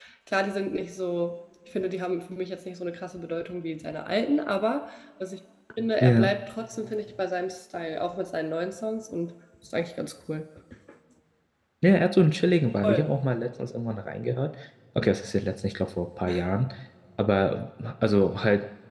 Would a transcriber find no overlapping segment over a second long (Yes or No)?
Yes